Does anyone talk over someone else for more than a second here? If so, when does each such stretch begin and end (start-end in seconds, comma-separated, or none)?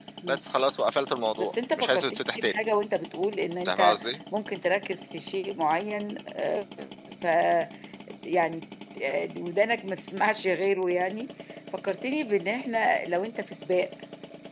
1.4-2.6